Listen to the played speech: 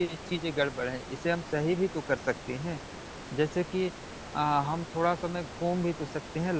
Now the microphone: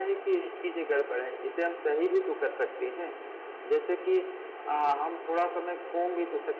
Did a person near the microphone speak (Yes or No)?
No